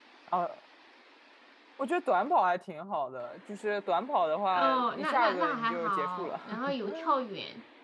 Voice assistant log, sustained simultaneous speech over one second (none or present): present